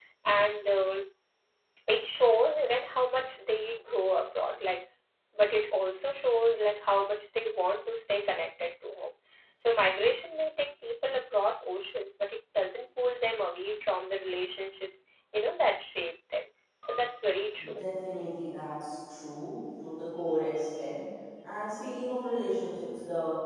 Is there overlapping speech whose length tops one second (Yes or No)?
No